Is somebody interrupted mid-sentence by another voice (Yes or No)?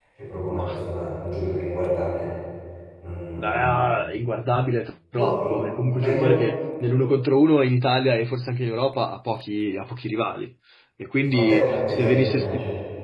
Yes